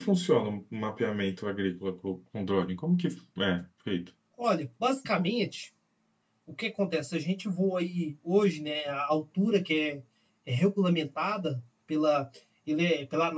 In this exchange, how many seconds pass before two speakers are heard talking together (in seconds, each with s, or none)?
none